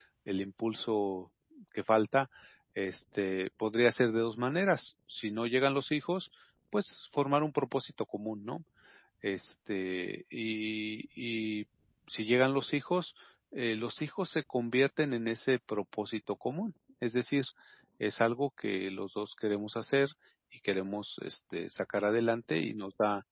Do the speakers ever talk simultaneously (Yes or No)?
No